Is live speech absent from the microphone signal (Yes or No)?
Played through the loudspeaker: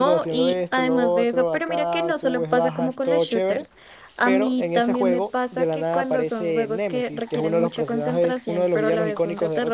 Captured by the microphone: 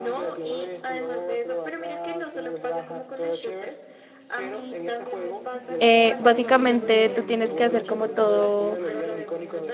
No